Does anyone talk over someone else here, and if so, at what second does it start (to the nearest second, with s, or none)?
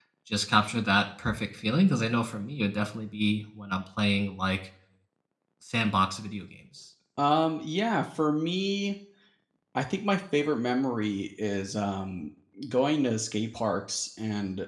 none